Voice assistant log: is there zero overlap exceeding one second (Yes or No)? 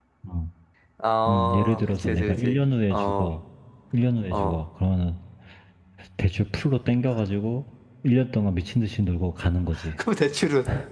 No